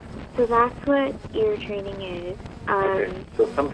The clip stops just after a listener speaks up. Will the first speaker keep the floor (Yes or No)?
No